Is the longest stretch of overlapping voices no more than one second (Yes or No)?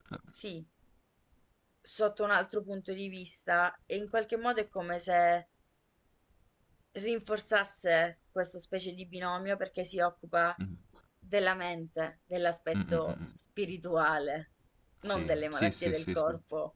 No